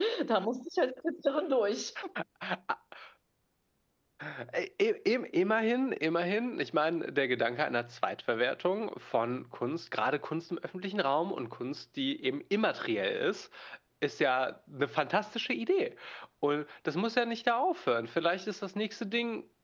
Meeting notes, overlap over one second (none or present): none